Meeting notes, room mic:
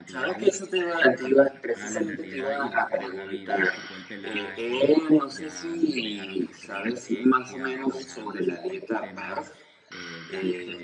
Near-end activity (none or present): present